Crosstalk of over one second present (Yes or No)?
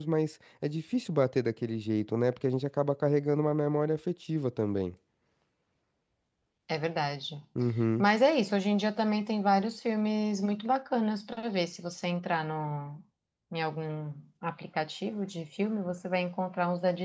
No